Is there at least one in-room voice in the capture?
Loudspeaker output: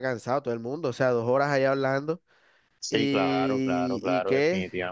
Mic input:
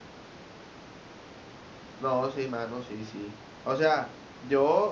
Yes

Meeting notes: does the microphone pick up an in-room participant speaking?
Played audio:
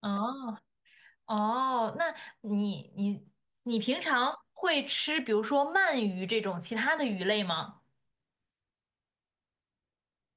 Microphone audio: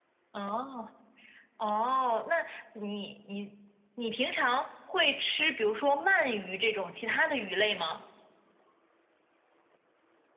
No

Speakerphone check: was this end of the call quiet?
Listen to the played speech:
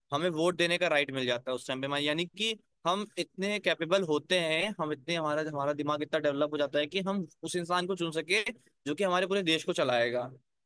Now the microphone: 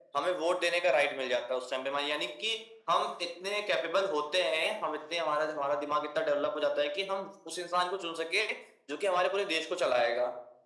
Yes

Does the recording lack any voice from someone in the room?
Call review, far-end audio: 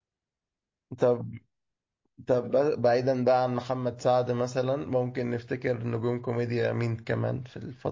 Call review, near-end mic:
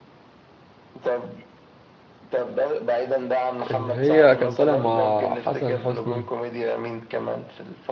No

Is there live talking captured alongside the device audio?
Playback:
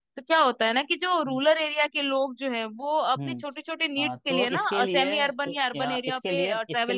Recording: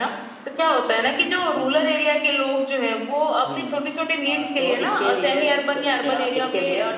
No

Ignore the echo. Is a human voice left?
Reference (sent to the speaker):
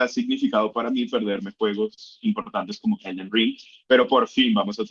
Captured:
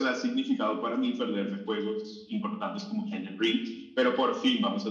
No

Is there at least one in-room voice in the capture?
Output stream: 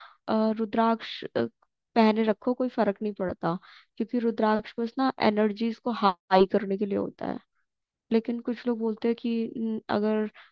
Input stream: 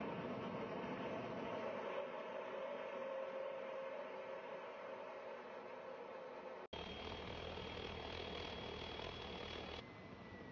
No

